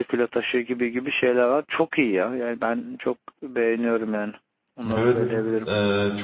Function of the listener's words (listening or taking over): taking over